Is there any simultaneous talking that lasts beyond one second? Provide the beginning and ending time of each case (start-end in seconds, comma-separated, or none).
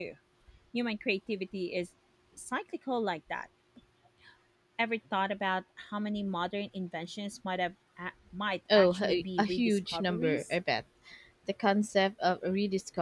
8.8-10.5